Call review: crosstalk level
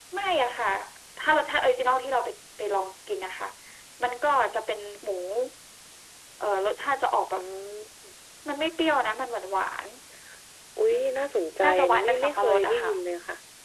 present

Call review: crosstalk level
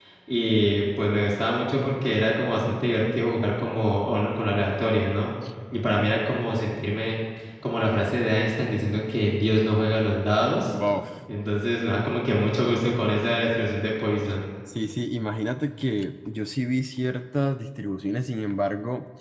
none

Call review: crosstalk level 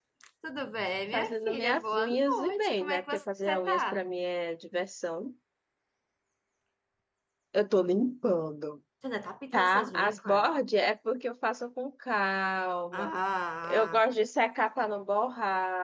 present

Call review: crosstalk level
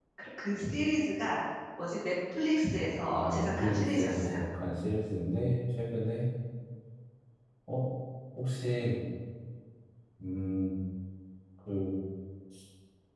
present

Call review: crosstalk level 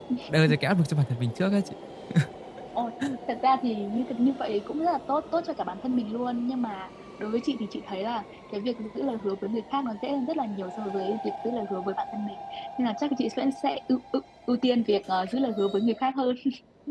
none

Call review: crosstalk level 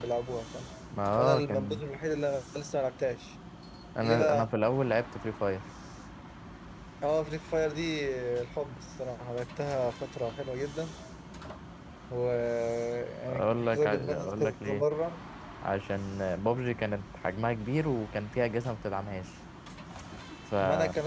present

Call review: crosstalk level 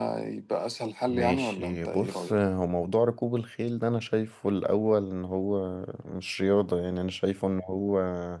present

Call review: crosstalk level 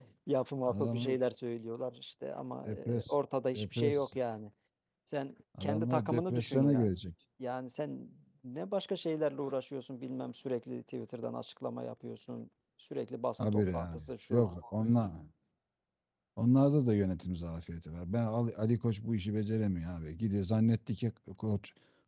present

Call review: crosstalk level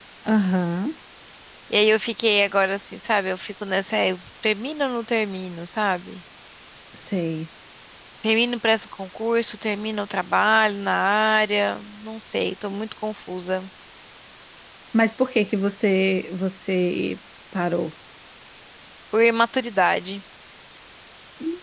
none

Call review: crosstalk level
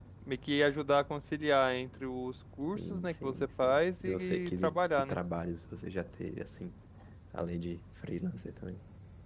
present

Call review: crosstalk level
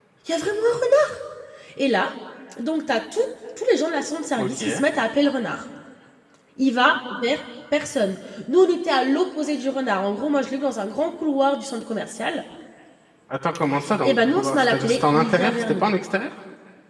present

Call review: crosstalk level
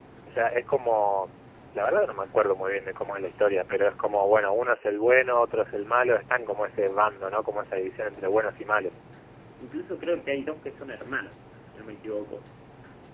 none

